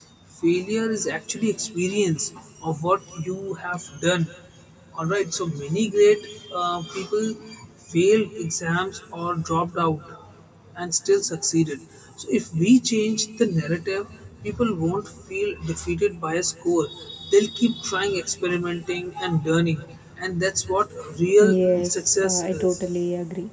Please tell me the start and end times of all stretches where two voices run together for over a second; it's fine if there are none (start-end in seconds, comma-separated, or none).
21.5-22.8